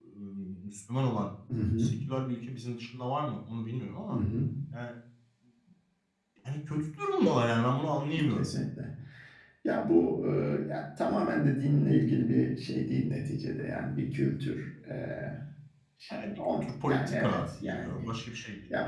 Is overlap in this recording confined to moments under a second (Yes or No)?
No